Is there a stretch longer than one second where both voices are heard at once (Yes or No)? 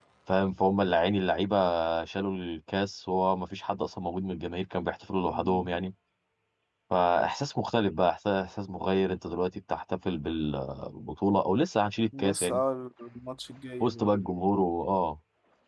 No